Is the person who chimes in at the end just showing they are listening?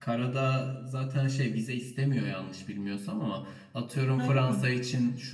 Yes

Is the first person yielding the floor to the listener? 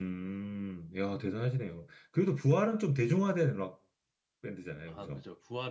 Yes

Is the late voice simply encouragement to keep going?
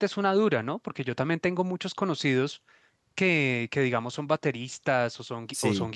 Yes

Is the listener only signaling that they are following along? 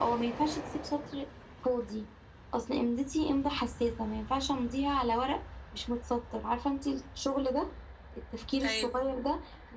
Yes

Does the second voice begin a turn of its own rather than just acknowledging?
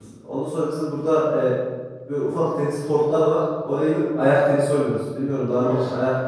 Yes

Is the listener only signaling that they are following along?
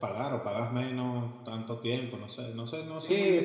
No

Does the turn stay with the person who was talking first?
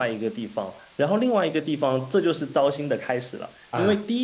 Yes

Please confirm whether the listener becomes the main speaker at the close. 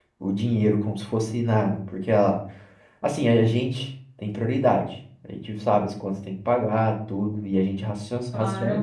No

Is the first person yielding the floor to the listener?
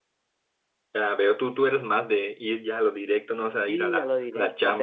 Yes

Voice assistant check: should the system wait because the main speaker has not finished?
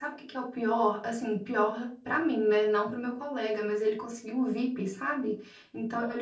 Yes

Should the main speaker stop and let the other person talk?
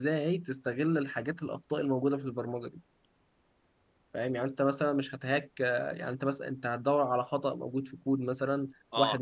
No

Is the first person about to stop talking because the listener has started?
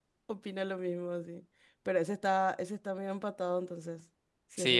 Yes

